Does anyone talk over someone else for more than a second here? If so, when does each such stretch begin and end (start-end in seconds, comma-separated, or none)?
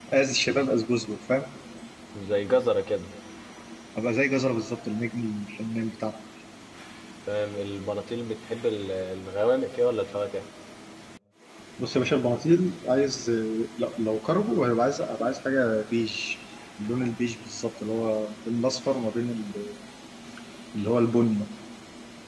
none